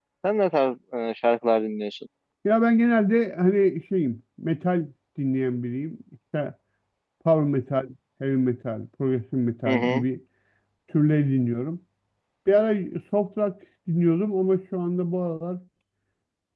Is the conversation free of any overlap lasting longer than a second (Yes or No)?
Yes